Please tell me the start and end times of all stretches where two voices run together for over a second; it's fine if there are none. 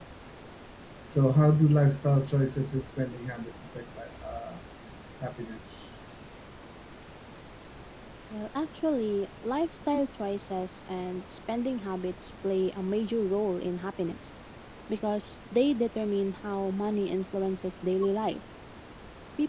none

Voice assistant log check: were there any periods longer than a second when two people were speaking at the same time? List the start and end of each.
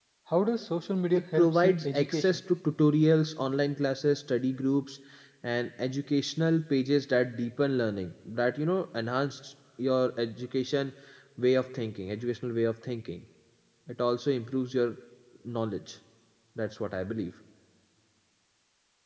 1.1-2.4

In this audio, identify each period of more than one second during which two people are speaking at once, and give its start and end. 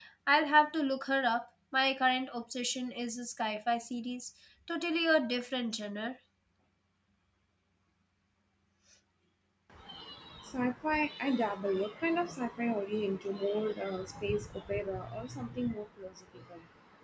none

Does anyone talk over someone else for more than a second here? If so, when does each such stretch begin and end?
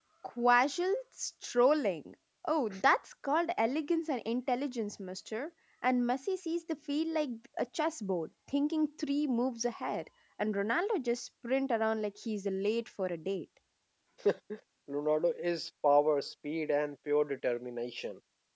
none

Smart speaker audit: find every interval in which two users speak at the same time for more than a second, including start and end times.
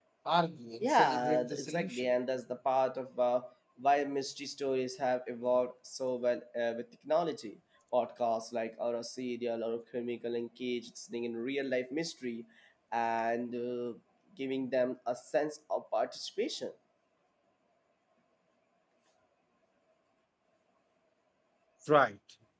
0.8-2.1

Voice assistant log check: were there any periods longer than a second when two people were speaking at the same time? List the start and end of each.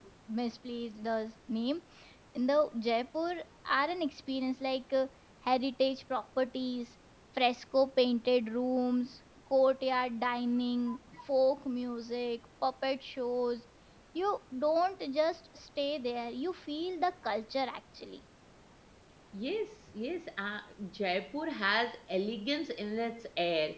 none

